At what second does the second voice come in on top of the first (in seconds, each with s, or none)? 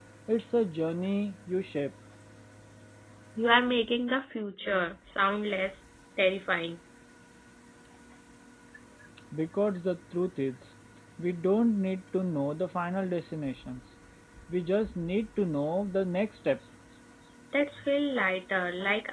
none